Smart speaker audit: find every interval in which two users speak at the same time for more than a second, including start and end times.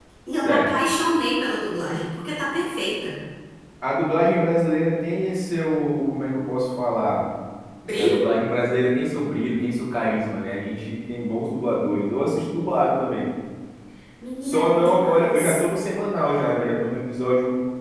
14.4-15.6

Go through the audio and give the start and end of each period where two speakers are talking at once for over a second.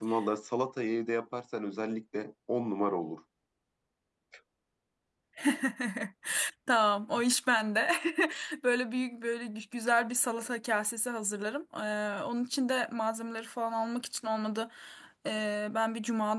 none

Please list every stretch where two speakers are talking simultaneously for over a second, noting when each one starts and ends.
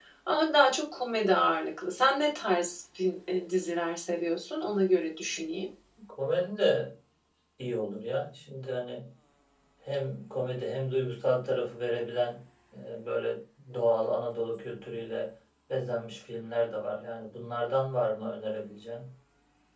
none

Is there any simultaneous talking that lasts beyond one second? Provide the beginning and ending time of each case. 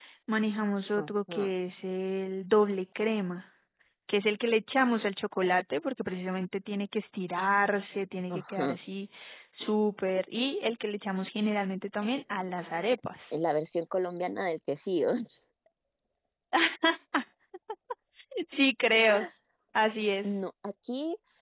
none

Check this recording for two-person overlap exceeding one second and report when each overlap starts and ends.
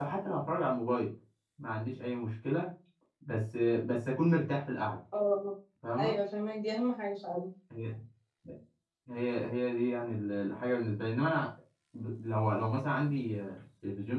none

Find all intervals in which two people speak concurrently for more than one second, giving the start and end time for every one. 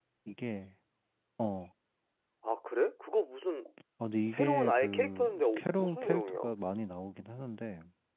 4.3-6.4

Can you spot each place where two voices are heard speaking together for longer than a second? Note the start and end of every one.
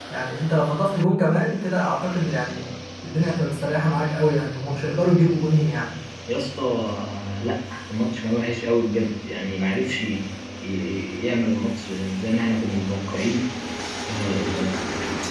none

